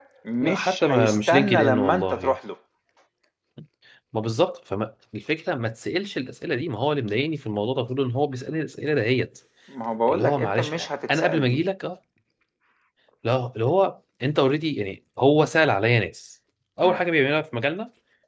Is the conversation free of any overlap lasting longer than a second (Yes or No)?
No